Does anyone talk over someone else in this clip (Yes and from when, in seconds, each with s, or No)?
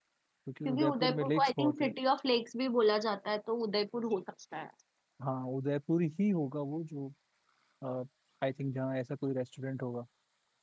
Yes, from 0.7 s